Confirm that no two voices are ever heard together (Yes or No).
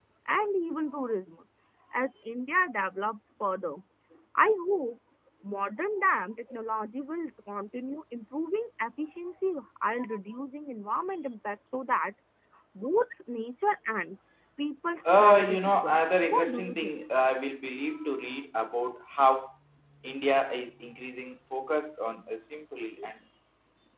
No